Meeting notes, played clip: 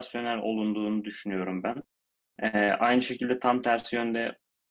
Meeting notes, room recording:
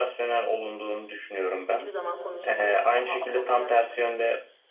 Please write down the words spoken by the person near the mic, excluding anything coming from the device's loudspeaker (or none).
hiçbir zaman konuşamayan, daha asosyal,